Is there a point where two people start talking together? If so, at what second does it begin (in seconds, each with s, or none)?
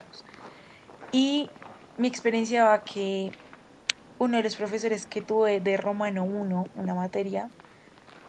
none